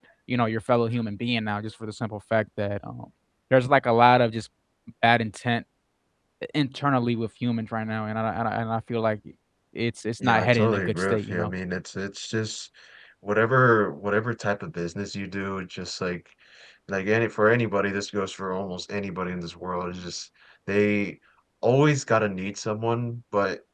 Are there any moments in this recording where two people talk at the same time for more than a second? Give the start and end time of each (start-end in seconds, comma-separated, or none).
10.2-11.5